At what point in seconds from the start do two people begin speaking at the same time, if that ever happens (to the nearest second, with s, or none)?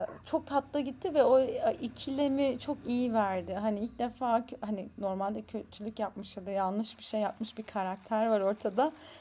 none